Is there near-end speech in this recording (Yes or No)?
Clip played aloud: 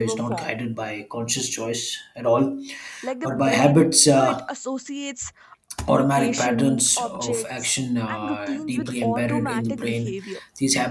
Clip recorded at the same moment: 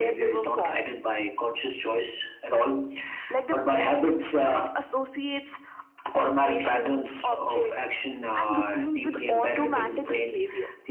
No